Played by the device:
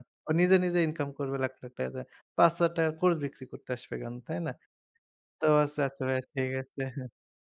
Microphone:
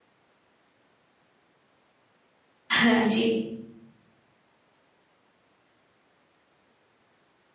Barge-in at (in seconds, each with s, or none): 2.8 s